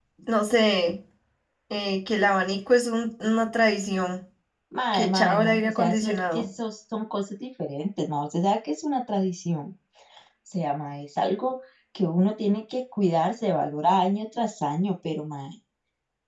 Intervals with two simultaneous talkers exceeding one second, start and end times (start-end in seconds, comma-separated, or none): 4.9-6.4